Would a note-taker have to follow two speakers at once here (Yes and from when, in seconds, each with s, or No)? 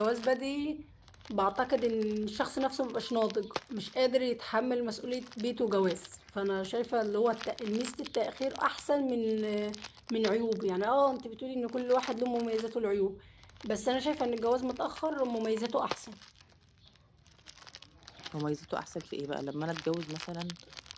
No